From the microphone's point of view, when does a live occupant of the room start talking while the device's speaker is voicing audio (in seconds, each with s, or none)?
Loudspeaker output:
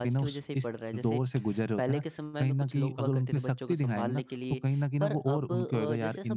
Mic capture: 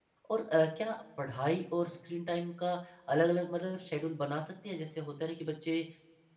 0.3 s